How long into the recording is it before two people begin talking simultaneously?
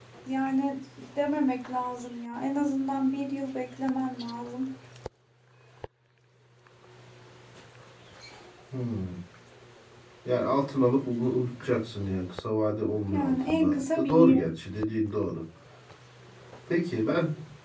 13.0 s

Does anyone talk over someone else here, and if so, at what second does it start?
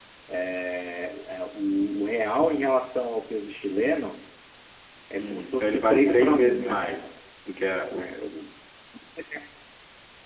5.2 s

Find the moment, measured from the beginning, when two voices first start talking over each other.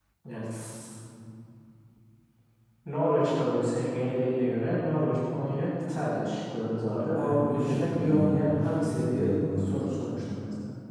7.2 s

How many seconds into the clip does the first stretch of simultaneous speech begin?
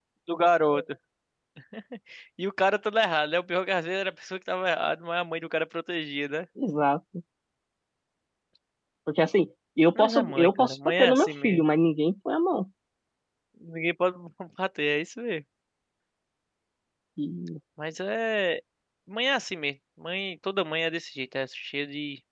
9.9 s

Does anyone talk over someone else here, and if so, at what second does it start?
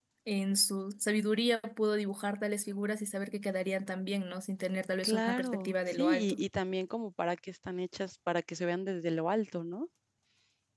5.0 s

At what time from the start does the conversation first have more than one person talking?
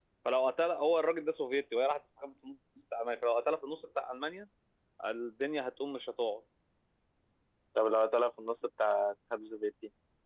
none

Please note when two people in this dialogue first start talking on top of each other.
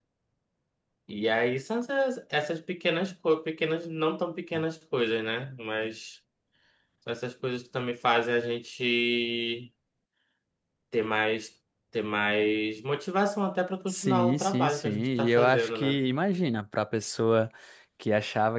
13.9 s

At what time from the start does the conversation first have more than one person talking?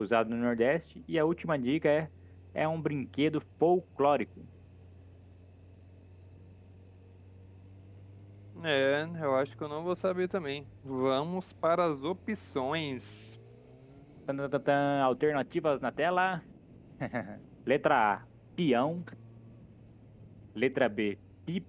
none

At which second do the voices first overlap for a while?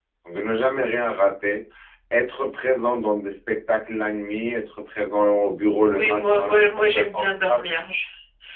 5.9 s

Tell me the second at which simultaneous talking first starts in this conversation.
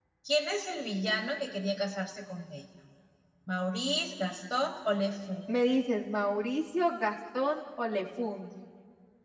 none

